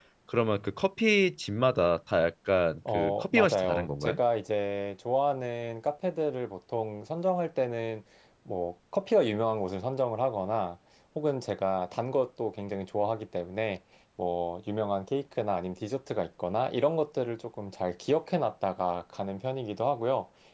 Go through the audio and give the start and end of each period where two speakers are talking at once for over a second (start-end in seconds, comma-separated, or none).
2.9-4.2